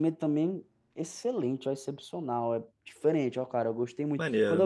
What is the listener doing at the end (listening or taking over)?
listening